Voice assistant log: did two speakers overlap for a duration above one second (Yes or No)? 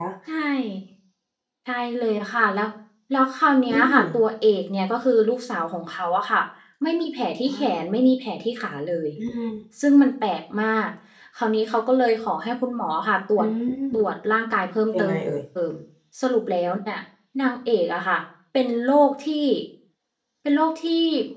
No